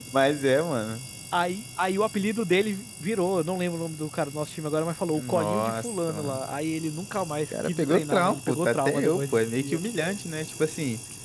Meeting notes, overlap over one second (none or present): present